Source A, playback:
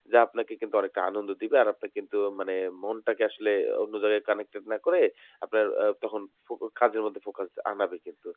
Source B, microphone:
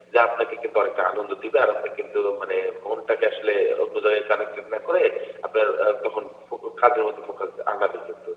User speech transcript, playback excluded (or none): none